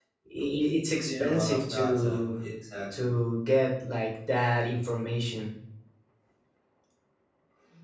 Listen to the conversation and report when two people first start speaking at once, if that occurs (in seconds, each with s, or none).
0.9 s